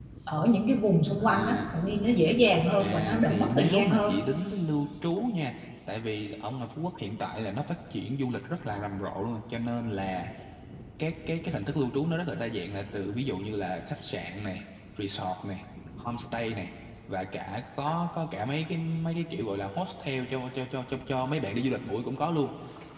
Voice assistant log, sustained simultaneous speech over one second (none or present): present